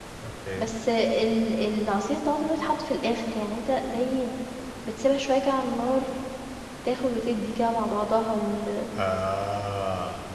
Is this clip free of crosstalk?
Yes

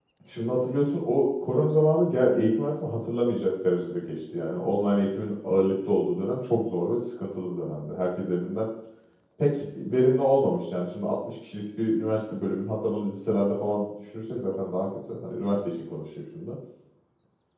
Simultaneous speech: No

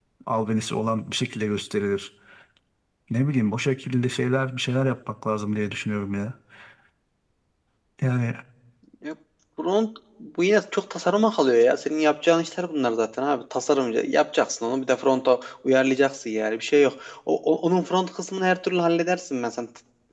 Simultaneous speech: No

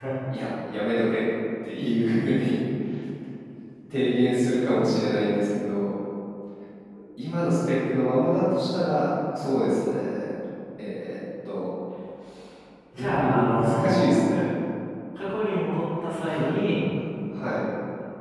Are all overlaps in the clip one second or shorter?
No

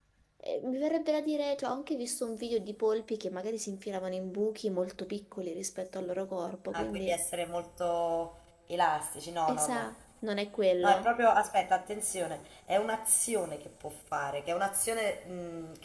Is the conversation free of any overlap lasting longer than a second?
Yes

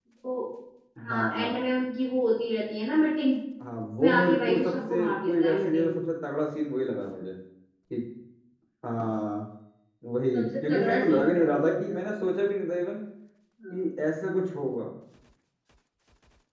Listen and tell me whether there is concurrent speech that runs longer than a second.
Yes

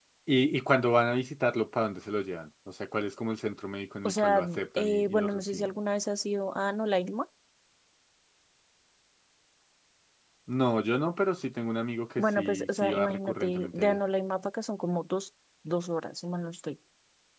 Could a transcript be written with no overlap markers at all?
No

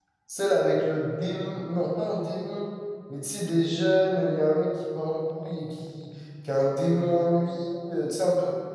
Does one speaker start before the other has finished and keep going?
No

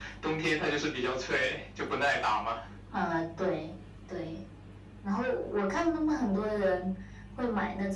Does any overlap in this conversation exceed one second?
No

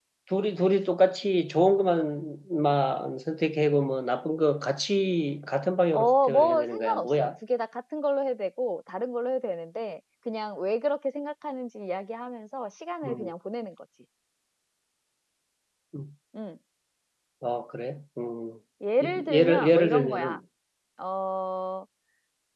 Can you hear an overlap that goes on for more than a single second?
Yes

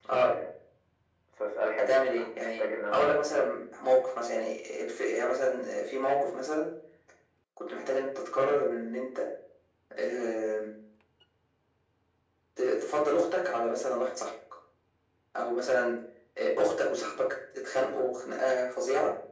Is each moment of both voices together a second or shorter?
No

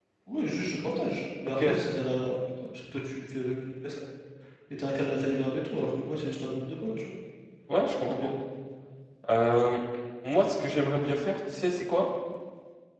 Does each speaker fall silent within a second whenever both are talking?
Yes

